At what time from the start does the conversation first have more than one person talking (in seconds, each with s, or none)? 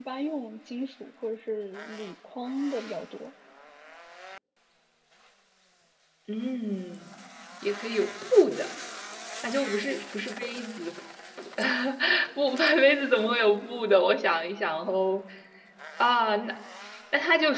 none